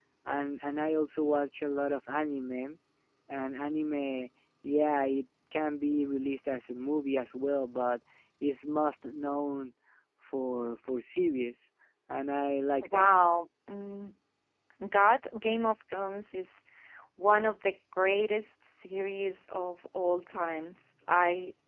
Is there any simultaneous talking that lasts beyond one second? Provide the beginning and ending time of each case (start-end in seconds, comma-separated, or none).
none